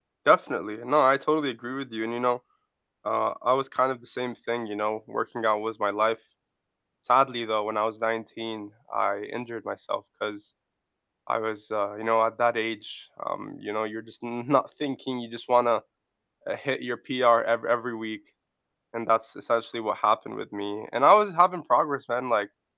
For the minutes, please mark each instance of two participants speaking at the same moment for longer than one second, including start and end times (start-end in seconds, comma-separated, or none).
none